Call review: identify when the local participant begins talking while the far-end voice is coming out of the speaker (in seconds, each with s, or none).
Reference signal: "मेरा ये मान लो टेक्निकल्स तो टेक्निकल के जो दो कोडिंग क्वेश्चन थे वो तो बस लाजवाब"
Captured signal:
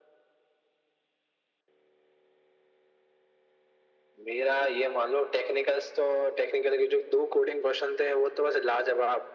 none